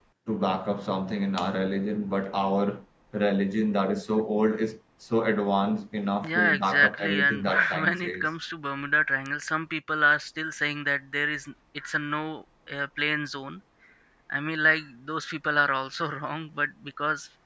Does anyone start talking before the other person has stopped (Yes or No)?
Yes